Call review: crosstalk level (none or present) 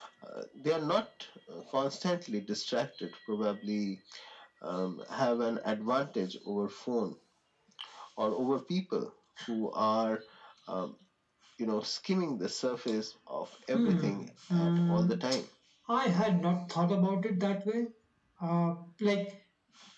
present